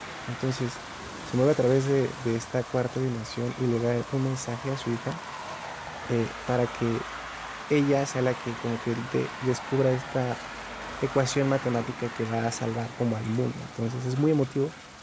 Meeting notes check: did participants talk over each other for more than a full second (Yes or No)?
No